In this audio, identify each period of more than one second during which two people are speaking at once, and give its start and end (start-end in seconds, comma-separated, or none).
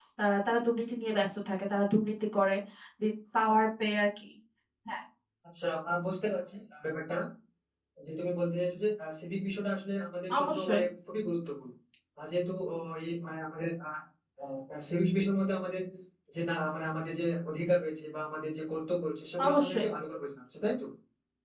none